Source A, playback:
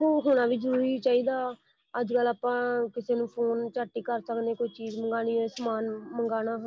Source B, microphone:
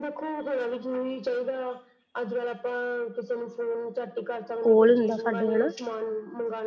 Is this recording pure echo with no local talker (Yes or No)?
No